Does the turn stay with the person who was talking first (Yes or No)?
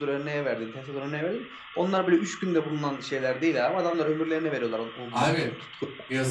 No